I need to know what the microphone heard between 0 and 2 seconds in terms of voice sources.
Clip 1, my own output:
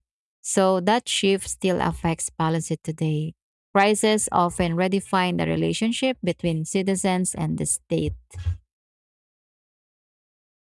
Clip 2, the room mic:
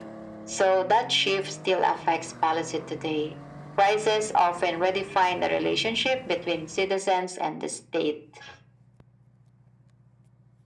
echo only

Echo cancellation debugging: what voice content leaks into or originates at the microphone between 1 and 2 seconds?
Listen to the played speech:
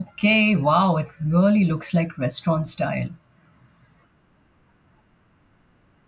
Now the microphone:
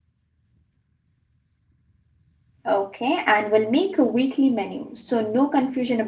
neither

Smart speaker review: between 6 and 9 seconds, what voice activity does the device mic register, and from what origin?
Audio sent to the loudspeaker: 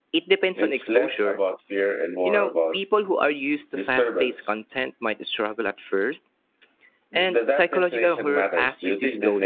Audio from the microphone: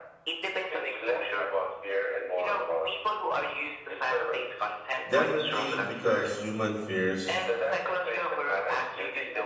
both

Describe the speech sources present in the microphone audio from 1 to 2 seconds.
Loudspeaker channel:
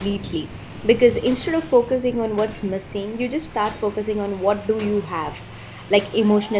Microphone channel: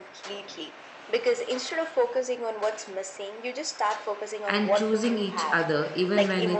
echo only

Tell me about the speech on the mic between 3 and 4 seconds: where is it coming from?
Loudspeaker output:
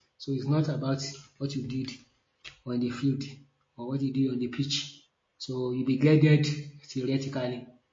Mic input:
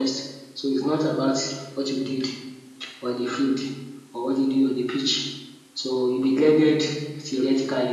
echo only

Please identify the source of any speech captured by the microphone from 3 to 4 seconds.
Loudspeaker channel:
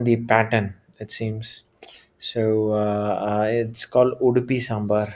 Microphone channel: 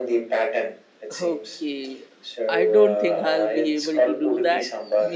both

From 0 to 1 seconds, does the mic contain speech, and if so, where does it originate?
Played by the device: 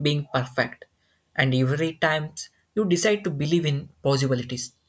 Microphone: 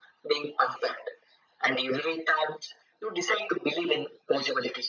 echo only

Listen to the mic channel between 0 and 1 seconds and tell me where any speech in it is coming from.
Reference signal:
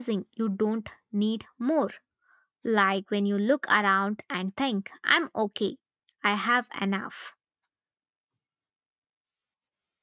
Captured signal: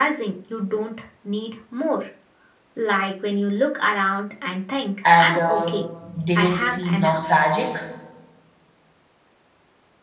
echo only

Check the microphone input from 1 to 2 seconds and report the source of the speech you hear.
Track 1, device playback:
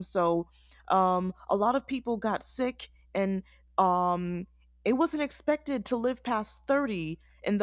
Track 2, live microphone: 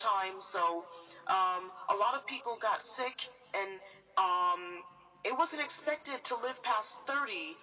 echo only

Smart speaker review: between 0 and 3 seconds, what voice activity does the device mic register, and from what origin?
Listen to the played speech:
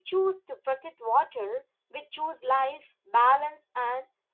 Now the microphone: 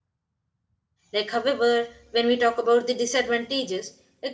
user only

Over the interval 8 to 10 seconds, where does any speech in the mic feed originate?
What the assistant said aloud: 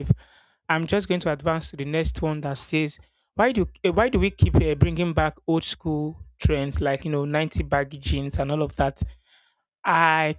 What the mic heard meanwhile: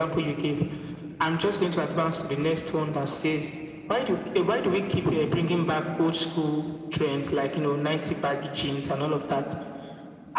echo only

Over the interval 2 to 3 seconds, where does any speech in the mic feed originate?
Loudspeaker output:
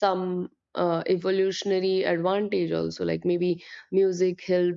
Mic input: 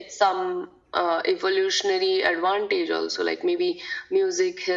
echo only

